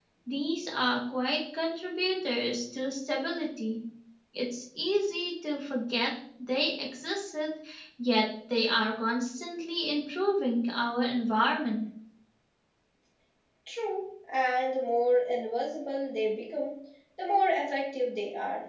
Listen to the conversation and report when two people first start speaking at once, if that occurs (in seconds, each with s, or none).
none